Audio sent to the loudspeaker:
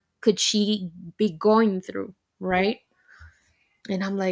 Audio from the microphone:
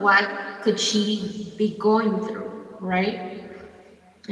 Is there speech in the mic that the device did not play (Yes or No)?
No